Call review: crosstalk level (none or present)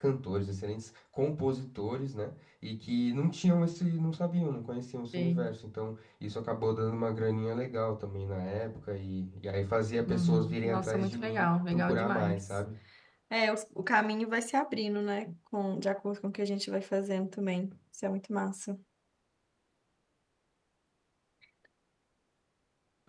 present